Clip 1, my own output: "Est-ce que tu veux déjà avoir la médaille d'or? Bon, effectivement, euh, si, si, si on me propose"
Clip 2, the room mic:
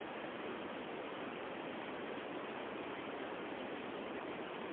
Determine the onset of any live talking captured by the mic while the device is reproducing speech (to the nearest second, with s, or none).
none